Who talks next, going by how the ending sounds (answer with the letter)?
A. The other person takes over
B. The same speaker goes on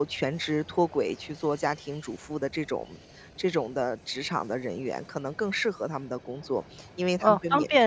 A